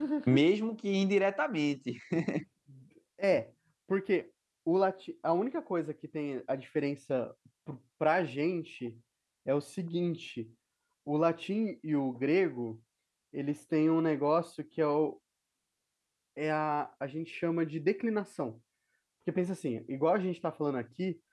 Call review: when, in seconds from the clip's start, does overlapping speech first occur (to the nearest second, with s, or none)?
none